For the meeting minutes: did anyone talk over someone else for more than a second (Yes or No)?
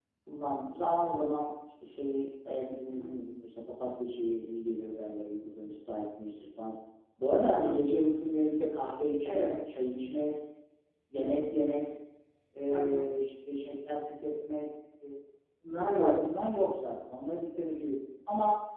No